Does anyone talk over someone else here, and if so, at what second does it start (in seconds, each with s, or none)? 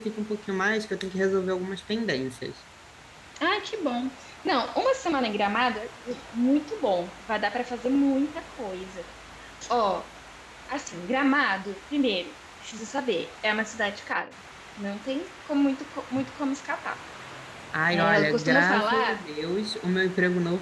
17.9 s